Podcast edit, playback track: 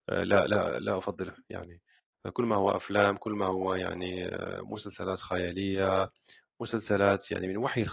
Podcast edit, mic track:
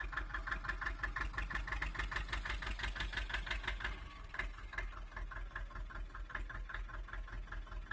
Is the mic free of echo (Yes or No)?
Yes